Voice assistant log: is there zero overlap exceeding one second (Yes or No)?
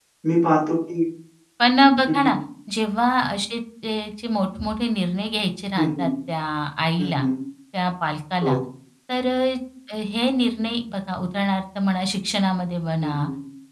Yes